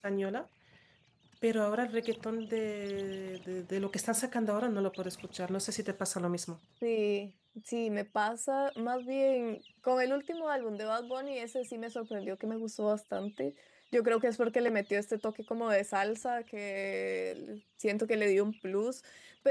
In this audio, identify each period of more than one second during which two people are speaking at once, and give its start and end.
none

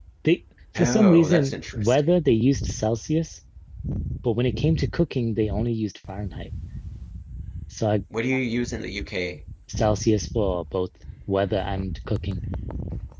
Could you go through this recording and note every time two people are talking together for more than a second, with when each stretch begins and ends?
0.8-2.0

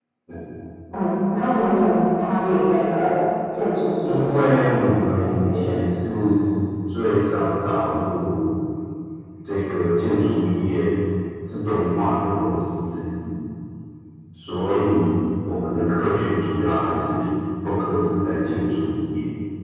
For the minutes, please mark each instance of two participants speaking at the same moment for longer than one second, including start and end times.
4.0-5.6

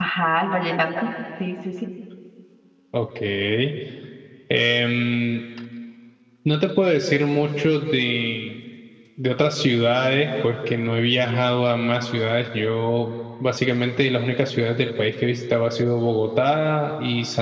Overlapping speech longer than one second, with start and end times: none

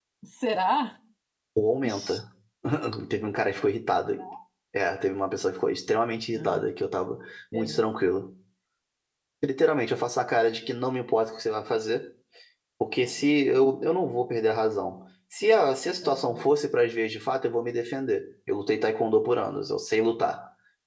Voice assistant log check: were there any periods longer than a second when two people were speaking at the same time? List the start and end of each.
none

